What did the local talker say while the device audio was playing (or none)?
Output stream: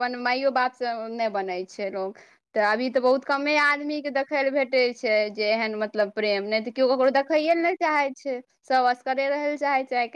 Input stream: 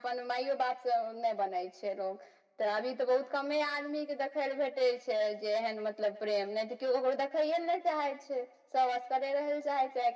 none